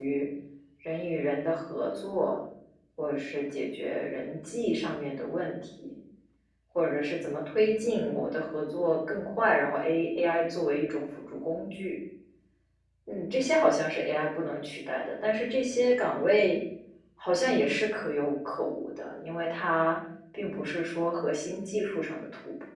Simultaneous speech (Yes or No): No